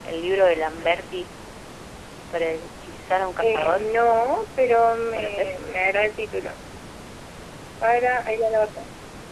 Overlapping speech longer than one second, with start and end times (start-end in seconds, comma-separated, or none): none